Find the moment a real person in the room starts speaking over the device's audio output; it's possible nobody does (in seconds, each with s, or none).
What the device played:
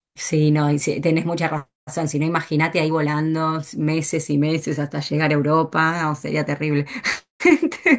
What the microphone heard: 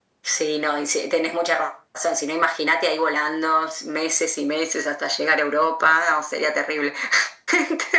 none